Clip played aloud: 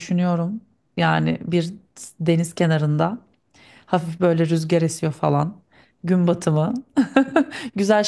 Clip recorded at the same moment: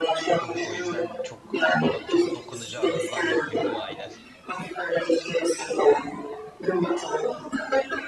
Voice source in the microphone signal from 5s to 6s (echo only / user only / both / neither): echo only